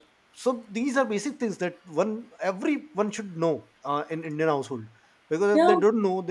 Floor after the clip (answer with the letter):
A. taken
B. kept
B